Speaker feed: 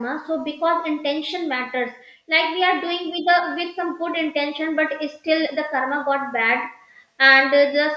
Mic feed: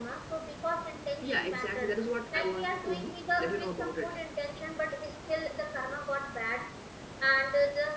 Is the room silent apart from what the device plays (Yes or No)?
No